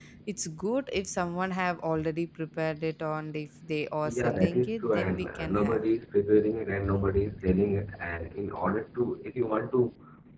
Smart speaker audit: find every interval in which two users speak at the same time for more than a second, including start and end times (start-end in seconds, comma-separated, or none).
4.1-5.8